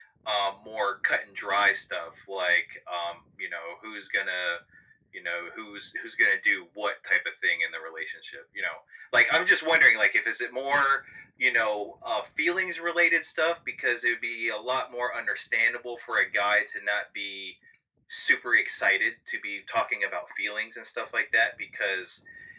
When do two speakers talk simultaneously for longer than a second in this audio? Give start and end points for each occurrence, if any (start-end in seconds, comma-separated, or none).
none